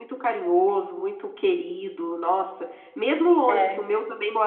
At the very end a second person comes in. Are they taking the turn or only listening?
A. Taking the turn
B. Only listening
B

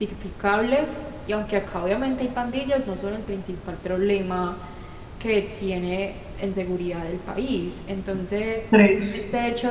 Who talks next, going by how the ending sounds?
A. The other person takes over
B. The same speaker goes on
B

